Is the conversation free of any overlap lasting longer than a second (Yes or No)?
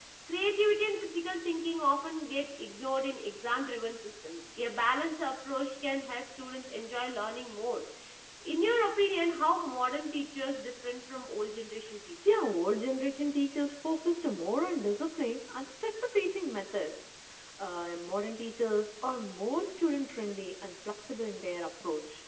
Yes